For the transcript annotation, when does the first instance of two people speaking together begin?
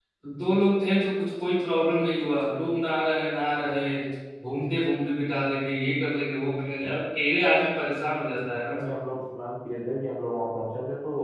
none

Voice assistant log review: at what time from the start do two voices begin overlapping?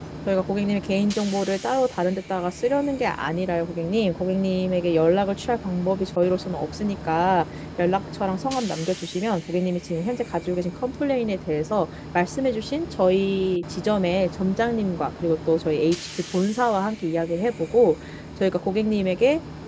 none

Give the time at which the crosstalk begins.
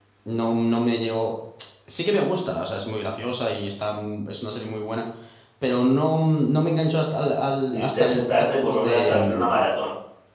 7.7 s

